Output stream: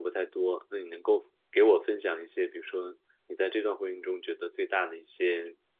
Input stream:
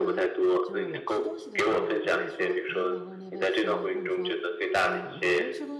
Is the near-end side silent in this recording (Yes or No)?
No